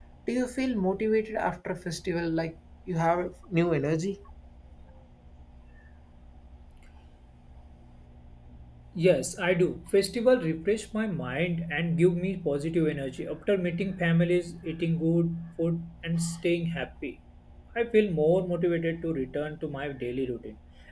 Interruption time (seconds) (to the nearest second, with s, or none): none